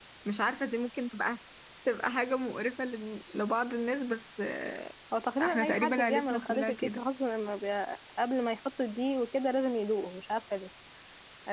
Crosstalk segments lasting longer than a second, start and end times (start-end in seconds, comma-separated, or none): 5.4-7.0